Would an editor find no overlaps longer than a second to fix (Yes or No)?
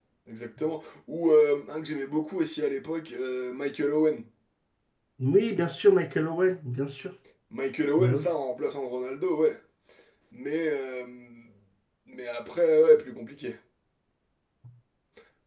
Yes